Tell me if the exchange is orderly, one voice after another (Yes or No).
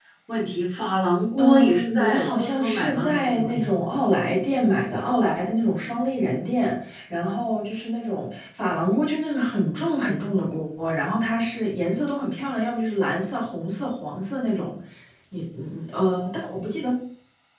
No